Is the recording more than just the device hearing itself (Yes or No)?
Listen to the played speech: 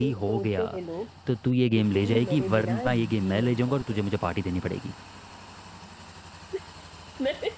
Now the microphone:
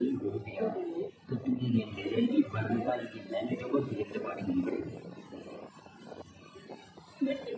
No